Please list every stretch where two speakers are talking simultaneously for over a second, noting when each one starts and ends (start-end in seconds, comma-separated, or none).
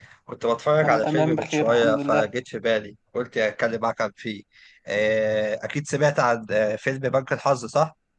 0.8-2.3